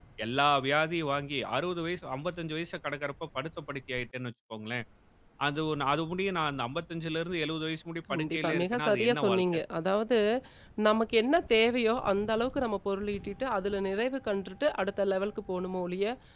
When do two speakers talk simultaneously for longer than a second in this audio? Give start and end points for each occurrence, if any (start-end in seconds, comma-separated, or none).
8.1-9.6